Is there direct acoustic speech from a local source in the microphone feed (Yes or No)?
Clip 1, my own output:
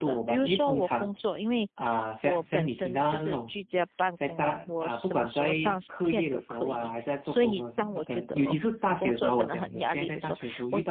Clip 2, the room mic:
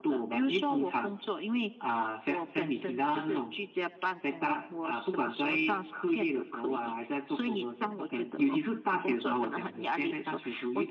No